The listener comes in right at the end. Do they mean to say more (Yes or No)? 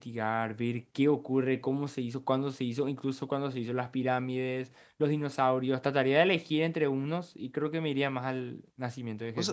Yes